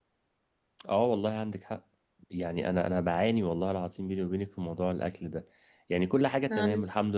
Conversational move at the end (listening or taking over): listening